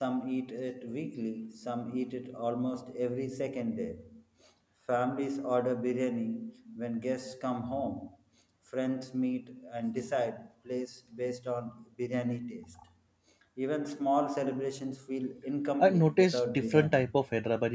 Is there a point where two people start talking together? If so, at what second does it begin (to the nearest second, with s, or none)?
16 s